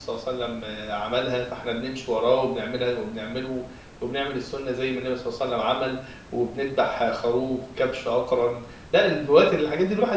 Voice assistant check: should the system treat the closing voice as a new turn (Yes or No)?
No